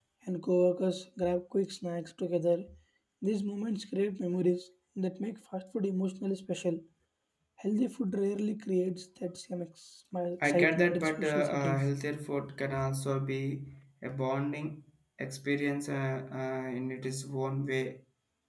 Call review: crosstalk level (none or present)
present